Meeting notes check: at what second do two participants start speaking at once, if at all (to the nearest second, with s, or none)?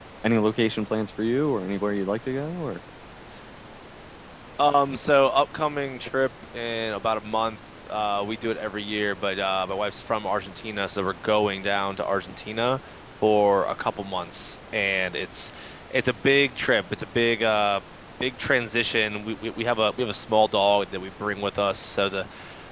none